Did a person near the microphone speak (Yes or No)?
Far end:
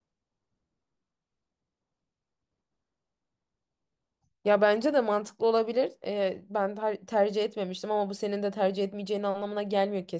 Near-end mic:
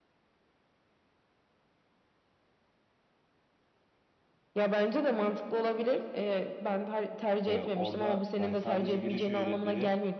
Yes